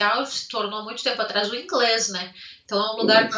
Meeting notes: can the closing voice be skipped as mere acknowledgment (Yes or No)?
Yes